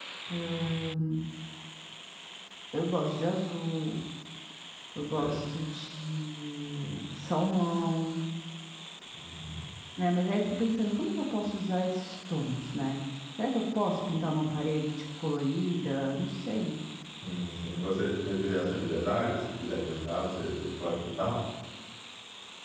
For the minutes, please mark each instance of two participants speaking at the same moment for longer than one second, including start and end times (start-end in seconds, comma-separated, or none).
none